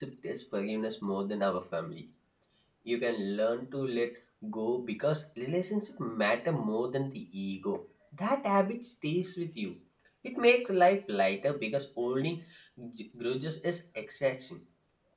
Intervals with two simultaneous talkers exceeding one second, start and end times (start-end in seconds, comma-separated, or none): none